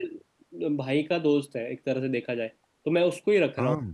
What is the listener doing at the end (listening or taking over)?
listening